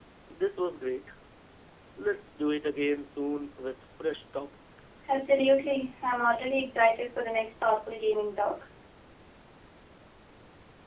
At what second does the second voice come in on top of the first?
none

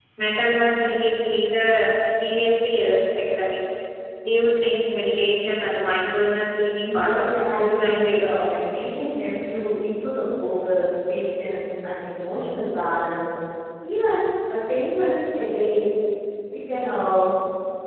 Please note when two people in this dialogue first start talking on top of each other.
6.8 s

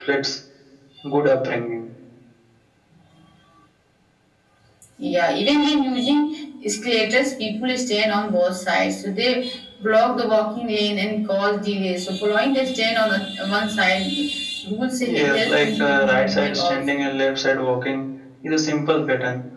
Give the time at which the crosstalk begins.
15.1 s

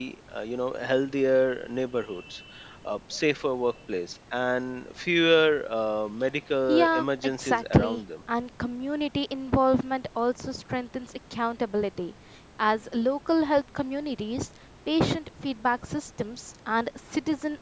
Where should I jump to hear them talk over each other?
6.7 s

